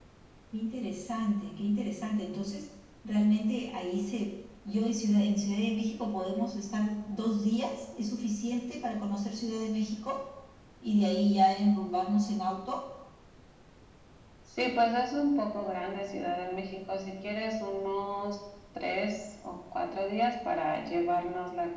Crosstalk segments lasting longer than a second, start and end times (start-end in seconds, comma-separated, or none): none